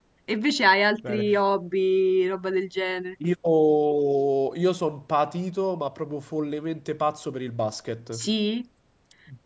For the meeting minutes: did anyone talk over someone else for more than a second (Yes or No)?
No